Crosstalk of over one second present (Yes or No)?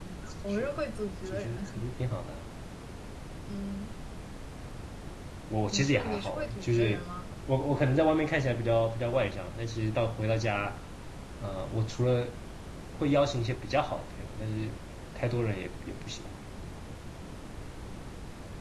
Yes